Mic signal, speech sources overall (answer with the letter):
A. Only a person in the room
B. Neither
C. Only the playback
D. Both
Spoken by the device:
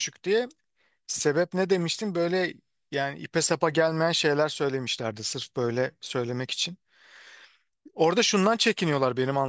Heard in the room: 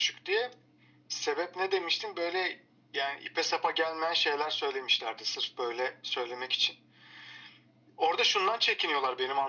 C